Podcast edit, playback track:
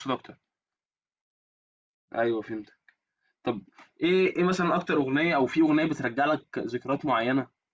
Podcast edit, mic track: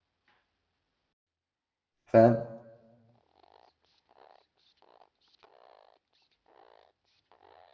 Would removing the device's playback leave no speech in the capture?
No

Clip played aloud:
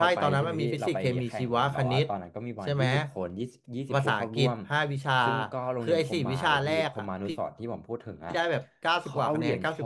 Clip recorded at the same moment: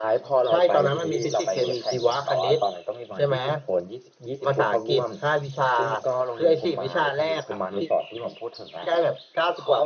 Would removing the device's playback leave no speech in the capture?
Yes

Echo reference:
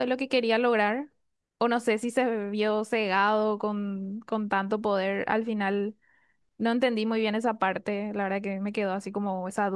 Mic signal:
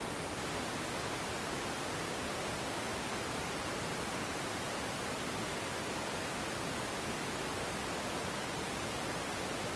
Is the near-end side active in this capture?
No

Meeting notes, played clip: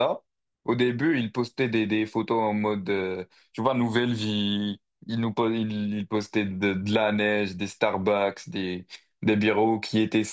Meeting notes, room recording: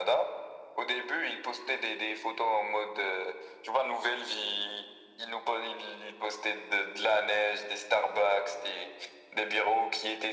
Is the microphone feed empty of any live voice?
Yes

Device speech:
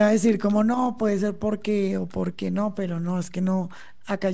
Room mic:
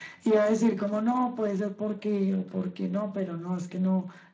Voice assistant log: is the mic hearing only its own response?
Yes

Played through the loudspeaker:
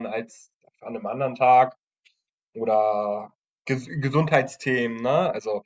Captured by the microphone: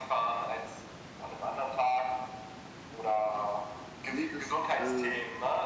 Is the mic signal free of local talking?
No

